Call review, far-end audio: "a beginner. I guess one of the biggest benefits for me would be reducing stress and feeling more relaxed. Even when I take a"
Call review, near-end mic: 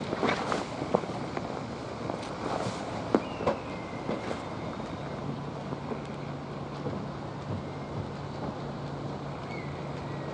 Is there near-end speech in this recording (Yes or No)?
No